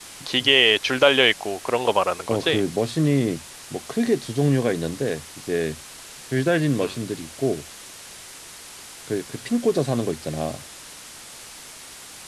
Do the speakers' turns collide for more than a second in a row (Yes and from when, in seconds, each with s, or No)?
No